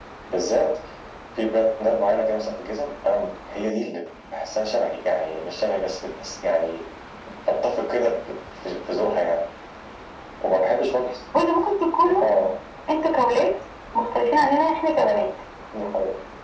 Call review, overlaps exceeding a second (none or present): none